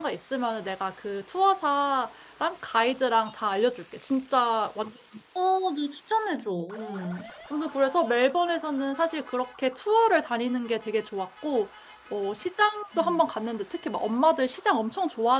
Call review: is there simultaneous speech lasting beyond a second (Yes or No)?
No